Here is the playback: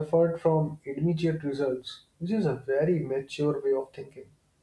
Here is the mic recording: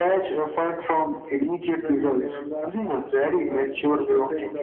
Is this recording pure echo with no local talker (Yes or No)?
No